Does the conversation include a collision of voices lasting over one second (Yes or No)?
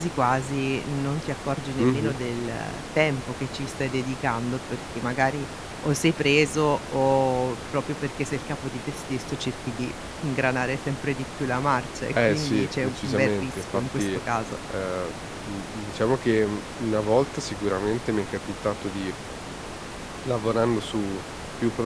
Yes